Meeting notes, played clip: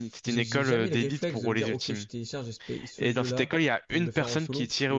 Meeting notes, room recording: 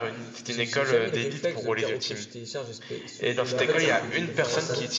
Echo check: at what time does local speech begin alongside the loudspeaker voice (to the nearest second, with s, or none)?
4 s